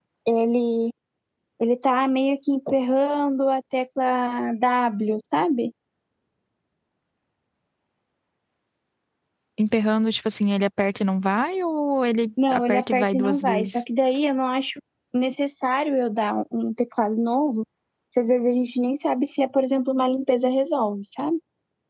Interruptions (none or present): present